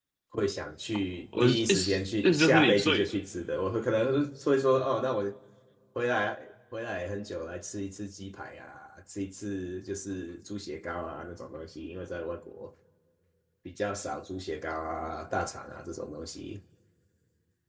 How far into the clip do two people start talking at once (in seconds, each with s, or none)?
1.3 s